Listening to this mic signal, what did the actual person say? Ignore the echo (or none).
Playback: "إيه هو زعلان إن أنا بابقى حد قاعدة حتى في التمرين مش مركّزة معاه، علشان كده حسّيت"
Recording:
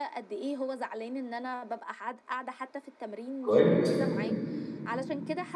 كويس.